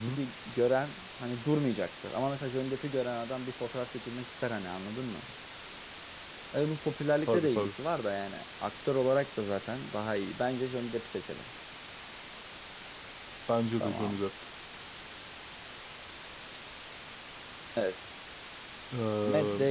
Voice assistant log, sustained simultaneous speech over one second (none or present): none